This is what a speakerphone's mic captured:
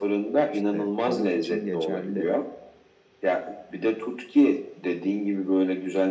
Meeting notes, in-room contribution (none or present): present